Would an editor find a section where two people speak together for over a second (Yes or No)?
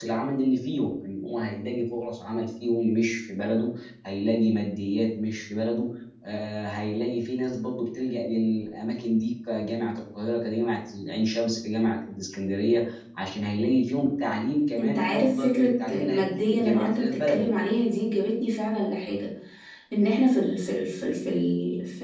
Yes